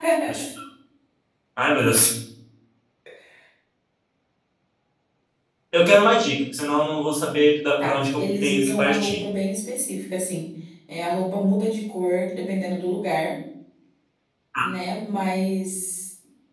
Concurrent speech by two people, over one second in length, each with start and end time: 7.8-9.2

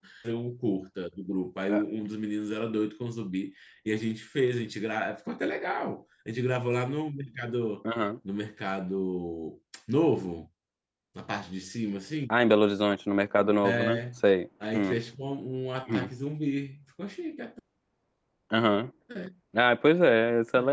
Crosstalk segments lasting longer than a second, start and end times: none

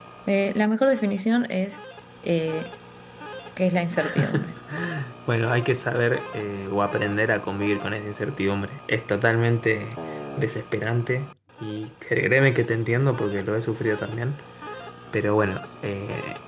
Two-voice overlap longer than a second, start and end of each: none

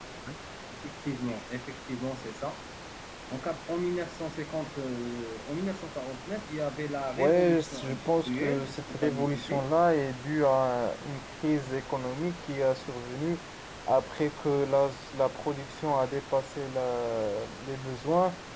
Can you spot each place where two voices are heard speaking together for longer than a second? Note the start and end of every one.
7.2-9.6

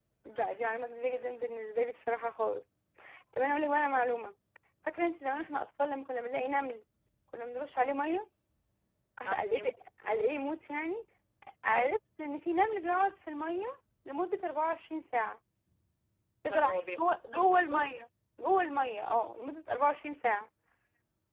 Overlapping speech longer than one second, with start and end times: 16.5-17.9

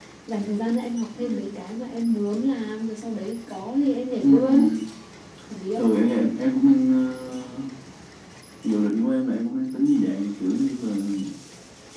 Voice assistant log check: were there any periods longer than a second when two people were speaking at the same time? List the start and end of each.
none

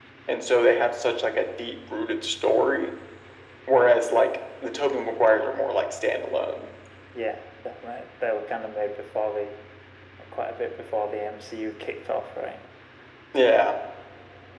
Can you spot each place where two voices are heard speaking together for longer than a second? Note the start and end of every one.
none

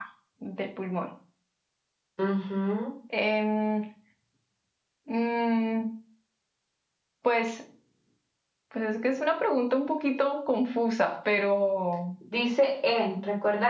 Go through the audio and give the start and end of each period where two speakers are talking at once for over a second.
none

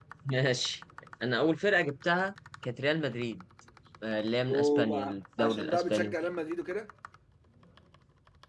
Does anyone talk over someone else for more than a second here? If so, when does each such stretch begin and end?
4.5-6.2

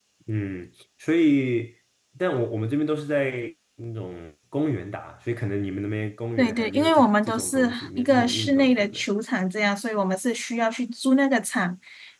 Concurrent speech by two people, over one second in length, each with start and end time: 6.4-9.0

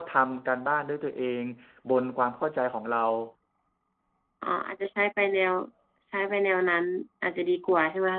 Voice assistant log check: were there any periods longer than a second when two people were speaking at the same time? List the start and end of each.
none

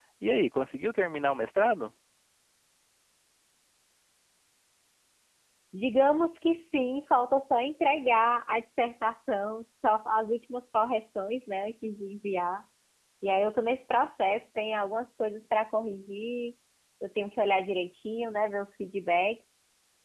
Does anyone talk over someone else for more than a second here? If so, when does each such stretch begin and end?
none

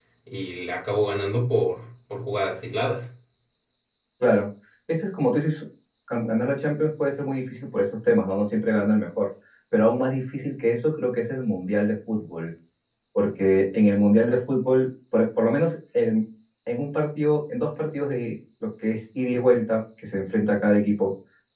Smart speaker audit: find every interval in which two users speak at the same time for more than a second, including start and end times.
none

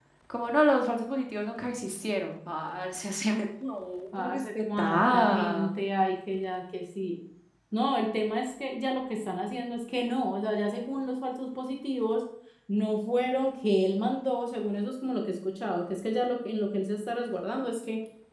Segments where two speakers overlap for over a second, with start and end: 4.2-5.8

